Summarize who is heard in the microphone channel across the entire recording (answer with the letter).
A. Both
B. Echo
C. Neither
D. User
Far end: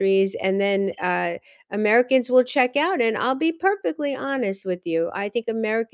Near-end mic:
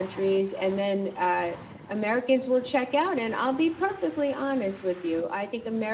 B